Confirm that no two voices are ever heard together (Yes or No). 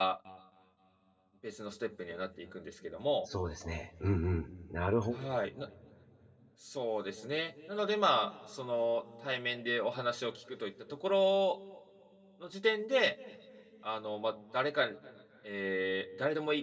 Yes